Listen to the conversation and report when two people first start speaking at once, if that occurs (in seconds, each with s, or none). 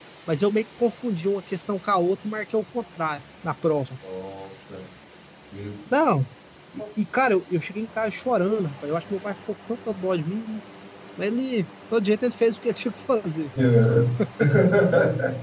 none